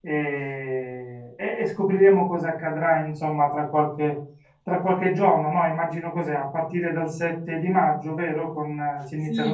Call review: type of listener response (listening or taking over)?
taking over